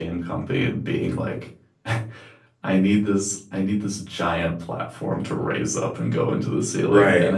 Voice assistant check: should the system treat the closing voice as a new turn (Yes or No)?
No